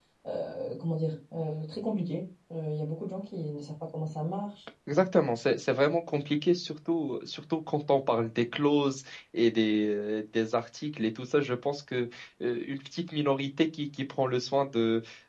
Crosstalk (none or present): none